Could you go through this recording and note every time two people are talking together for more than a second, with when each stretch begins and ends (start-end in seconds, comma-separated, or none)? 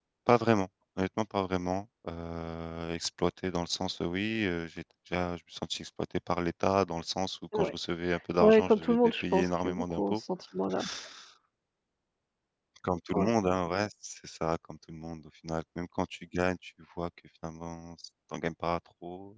8.4-10.2